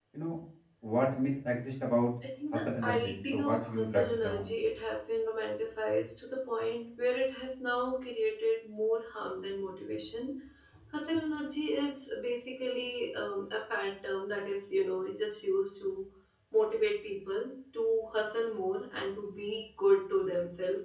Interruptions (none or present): present